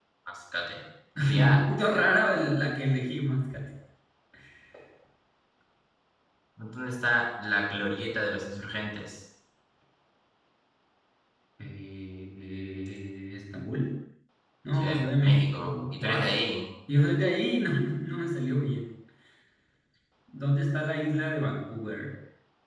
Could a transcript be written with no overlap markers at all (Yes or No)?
No